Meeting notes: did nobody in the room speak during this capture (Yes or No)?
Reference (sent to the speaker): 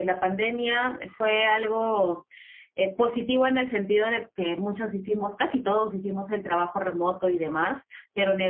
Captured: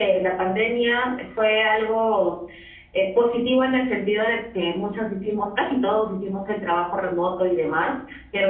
Yes